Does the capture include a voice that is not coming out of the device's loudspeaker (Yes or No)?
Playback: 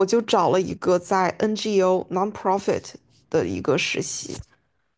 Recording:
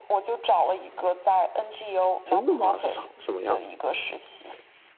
Yes